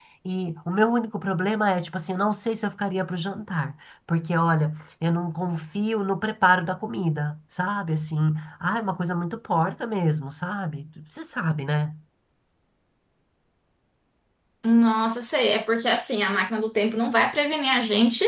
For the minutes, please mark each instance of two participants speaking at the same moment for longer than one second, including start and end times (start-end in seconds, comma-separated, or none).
none